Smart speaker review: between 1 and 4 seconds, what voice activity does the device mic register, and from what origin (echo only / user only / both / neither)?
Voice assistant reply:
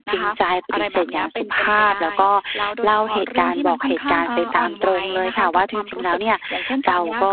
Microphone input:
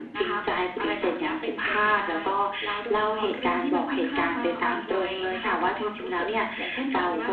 echo only